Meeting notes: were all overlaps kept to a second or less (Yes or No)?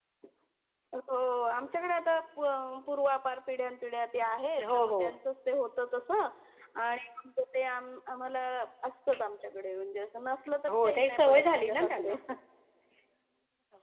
No